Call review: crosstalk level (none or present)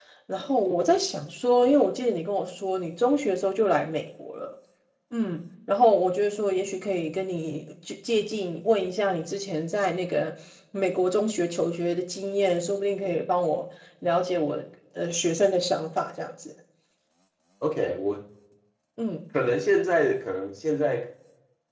none